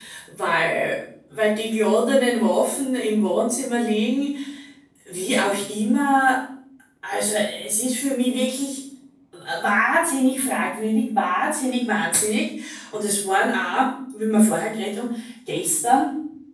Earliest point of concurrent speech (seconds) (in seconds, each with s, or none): none